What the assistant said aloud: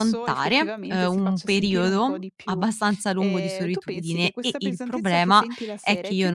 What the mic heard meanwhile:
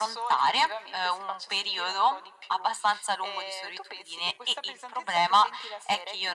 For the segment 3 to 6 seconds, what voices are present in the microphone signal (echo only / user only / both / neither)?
echo only